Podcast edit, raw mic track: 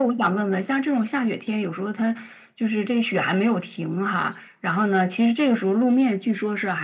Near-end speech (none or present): none